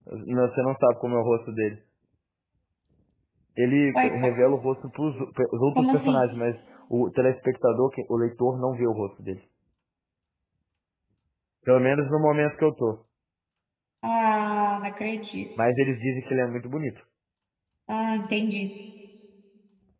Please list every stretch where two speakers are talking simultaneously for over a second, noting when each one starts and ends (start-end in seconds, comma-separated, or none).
none